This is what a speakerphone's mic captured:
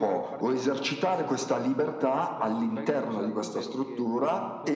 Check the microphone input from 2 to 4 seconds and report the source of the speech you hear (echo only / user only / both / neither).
both